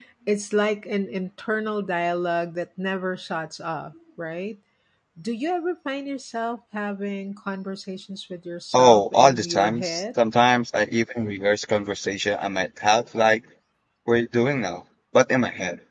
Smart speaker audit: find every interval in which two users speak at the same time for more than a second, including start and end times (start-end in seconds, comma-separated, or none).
8.7-10.0